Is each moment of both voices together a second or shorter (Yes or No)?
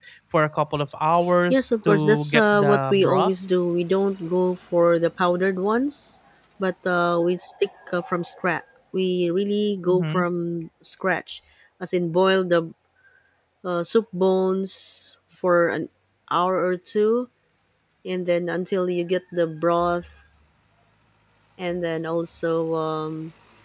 No